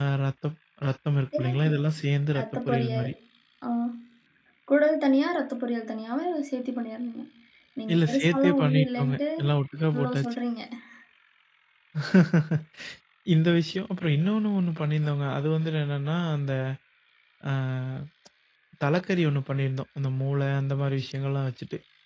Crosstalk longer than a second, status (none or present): present